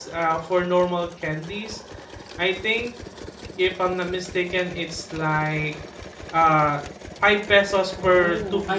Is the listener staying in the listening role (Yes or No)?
No